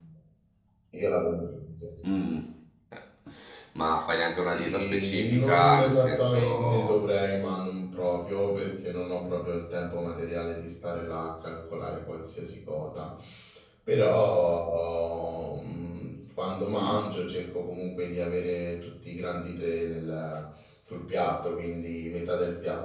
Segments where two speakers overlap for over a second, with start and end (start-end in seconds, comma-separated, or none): 4.5-7.0